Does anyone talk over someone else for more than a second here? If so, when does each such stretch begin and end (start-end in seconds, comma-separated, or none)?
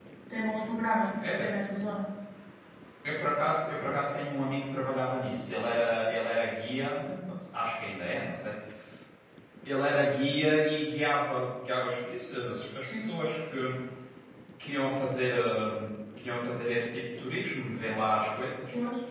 none